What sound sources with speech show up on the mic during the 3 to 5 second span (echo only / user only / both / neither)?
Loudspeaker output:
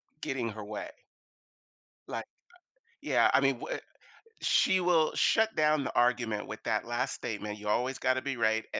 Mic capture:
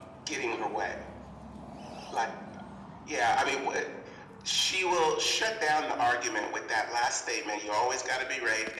echo only